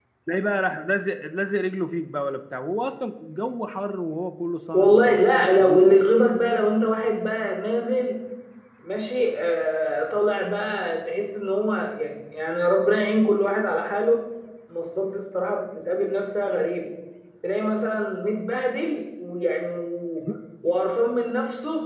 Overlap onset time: 4.7 s

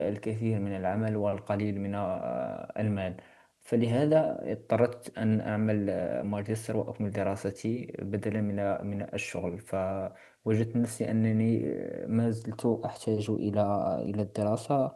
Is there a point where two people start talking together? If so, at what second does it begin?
none

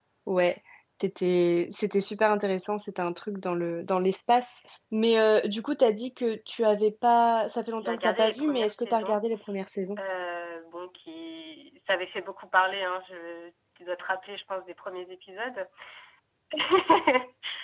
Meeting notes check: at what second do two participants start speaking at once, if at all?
7.8 s

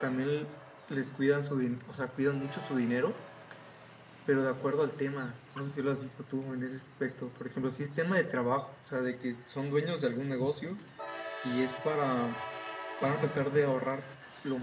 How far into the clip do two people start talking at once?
none

